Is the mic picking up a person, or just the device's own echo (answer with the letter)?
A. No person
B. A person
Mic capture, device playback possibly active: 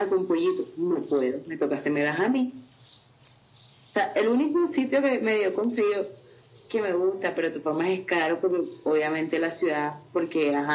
A